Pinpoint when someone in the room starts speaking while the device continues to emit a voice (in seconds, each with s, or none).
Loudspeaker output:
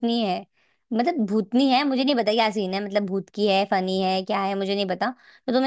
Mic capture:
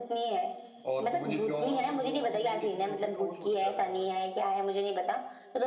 0.9 s